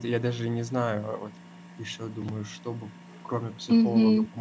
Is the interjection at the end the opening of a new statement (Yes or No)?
No